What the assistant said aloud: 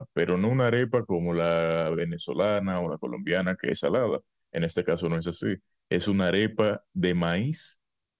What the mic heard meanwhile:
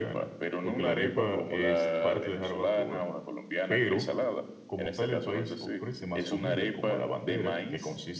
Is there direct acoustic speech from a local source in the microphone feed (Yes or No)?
Yes